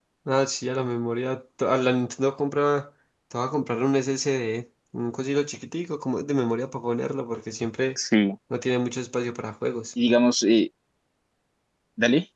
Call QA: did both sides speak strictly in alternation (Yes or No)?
Yes